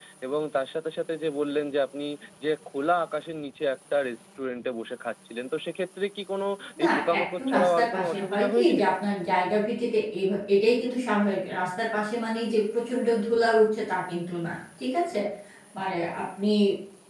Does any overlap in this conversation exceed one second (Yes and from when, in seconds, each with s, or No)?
Yes, from 6.8 s